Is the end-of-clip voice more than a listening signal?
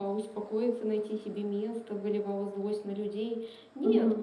Yes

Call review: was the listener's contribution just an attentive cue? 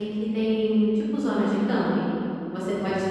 Yes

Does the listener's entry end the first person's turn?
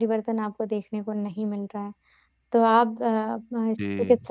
No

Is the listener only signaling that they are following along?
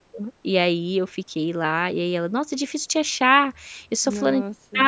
Yes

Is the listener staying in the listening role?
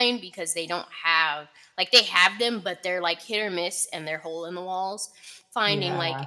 Yes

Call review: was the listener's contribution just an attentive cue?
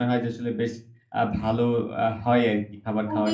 No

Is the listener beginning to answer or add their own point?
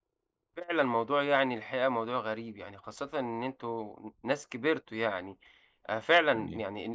No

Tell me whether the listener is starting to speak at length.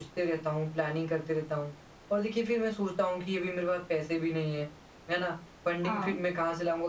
No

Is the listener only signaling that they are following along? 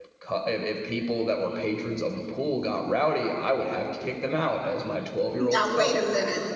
No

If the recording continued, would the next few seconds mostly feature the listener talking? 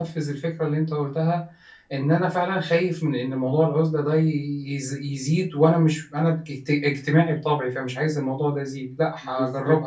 Yes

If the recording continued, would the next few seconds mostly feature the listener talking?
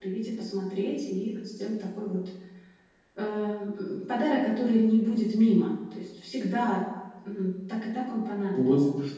Yes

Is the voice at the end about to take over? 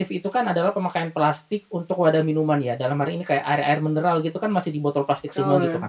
No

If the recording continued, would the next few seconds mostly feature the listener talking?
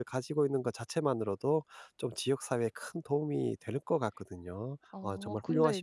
Yes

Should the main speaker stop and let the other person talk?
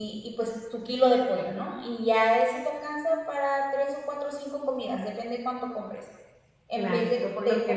Yes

